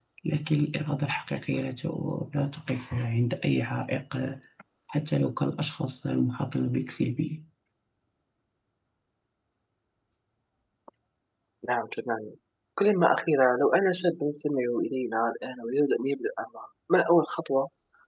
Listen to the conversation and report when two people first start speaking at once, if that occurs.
none

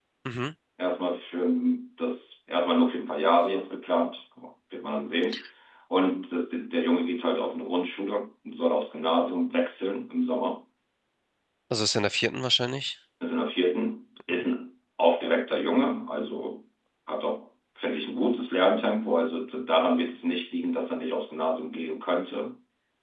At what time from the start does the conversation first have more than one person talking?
none

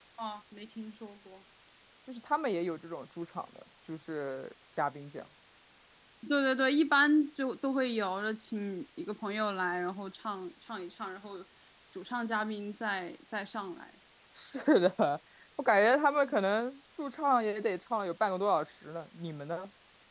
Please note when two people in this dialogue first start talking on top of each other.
none

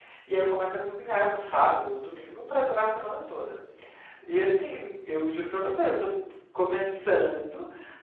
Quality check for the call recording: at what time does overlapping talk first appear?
none

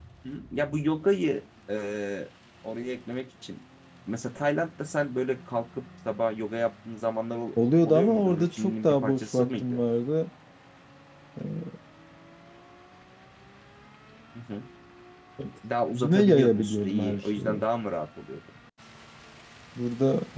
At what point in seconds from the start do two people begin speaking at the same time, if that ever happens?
7.8 s

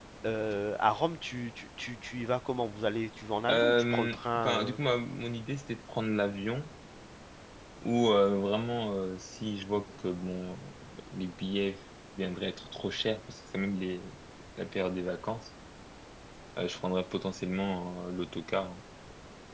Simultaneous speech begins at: 3.5 s

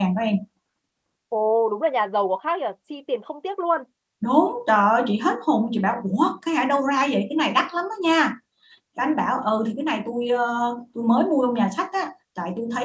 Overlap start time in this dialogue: none

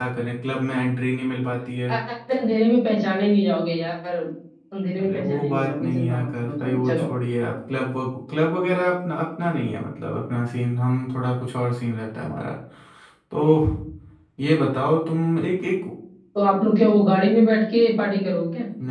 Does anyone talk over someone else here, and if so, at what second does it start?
5.0 s

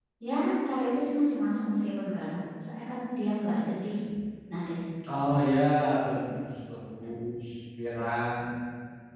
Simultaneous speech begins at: none

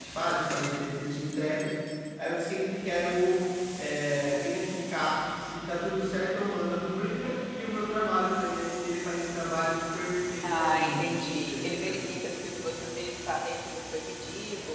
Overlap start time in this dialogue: 10.4 s

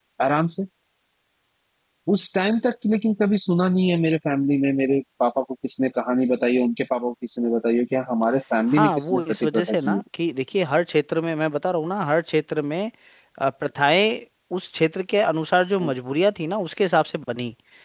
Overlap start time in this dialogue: 8.7 s

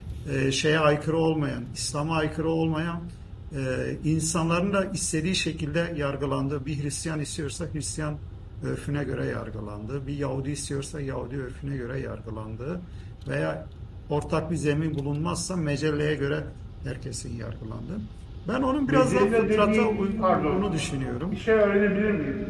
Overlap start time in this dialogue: 18.9 s

